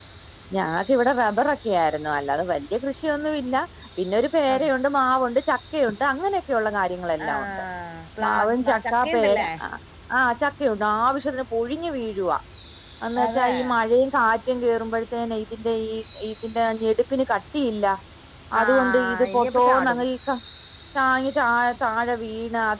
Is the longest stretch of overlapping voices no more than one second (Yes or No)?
No